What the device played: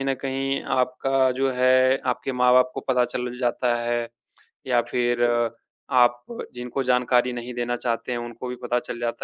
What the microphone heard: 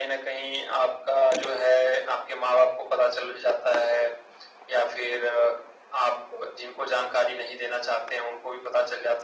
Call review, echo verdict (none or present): present